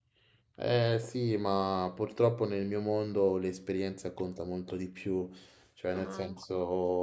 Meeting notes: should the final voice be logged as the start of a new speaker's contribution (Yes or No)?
No